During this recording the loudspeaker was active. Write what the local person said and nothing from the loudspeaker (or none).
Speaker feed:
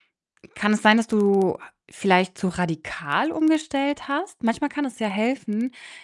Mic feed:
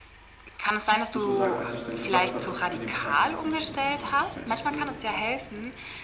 muss auch sagen, als ich dann gesagt habe an dem Tag, dass ich, äh, so was nicht mehr esse,